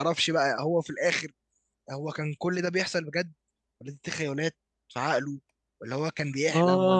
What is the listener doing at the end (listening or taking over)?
listening